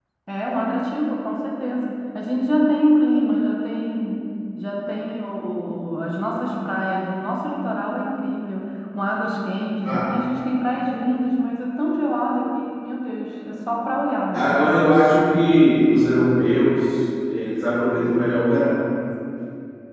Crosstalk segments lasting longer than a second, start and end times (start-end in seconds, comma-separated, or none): none